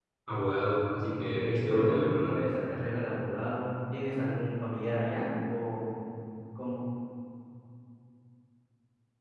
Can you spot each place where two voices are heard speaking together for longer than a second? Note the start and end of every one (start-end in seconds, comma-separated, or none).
1.2-2.4